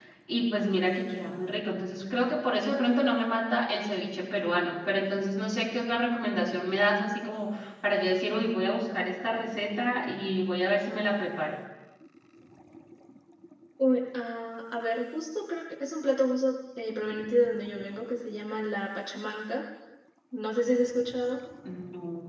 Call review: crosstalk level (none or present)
none